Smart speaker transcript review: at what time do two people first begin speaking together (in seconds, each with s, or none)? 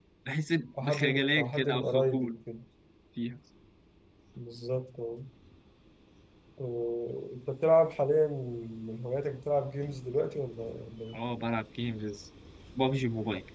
0.8 s